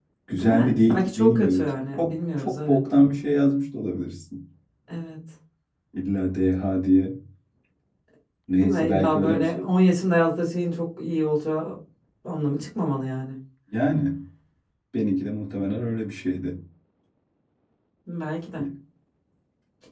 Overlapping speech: Yes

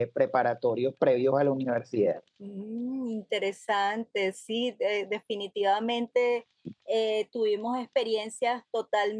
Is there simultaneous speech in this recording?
No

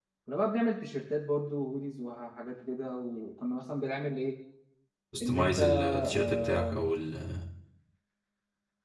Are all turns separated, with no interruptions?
No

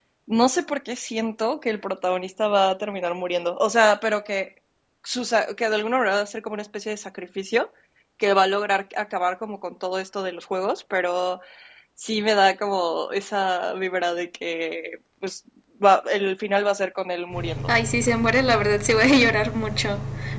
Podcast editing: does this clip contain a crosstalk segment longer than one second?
No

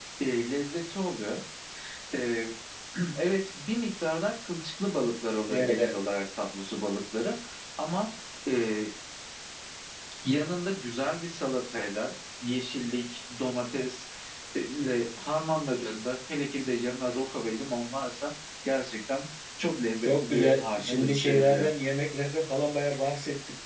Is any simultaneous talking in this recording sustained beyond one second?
Yes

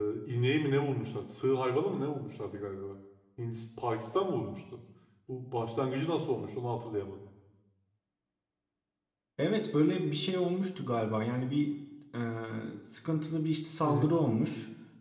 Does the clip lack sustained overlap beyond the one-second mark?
Yes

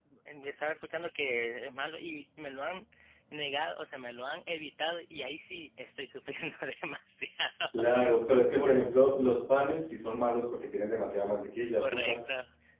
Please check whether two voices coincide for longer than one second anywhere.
No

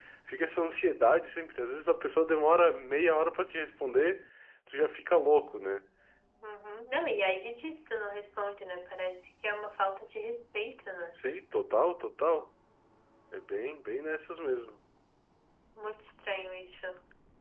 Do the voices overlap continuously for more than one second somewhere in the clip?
No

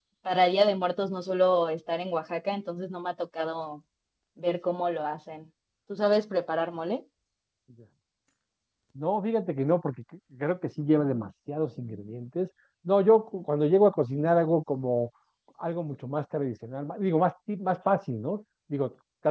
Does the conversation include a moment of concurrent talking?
No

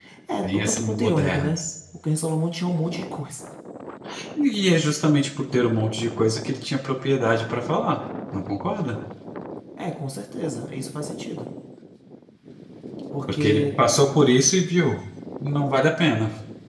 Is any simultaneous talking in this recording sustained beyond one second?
Yes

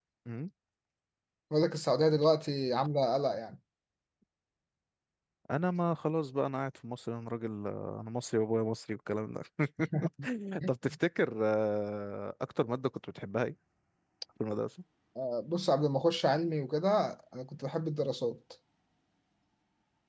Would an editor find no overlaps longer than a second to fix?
Yes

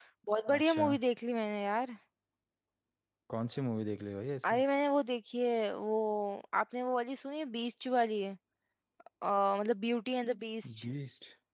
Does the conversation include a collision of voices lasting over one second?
No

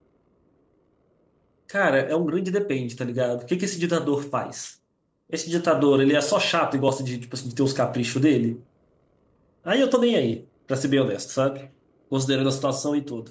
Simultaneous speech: No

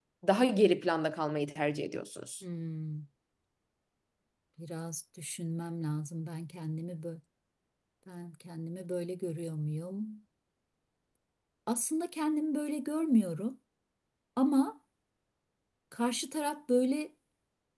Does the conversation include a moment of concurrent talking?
No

